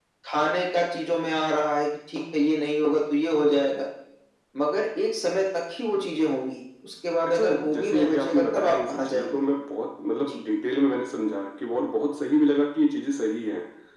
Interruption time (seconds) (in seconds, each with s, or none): 7.3 s